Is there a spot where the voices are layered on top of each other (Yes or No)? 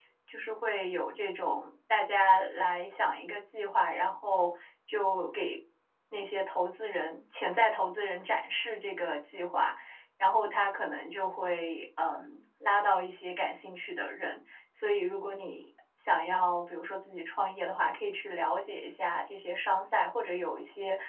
No